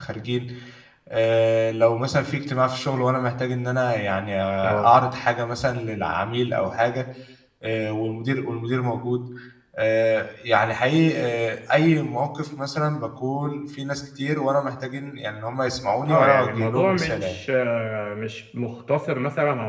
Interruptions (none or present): present